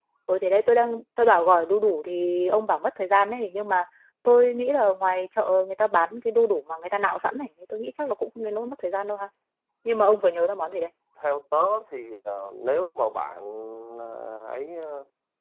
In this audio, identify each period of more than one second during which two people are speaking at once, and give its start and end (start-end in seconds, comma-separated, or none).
none